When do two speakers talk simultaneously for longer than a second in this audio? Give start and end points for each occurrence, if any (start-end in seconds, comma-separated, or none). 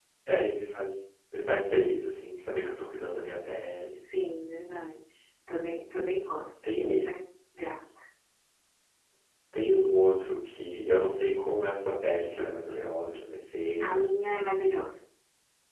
none